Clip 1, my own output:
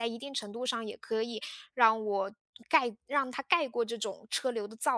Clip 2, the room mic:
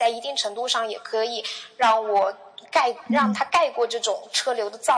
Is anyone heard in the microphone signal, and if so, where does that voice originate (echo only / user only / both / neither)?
both